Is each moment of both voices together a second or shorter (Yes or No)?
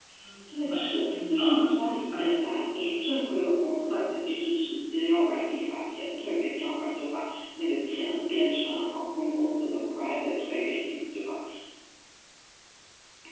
No